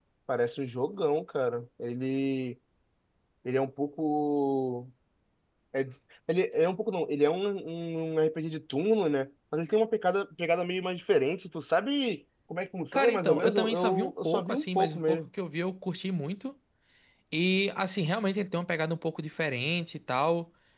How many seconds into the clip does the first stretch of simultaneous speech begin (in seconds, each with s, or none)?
12.9 s